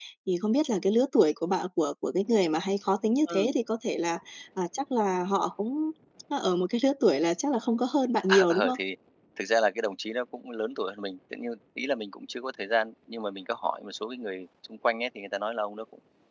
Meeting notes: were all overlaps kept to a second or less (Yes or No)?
Yes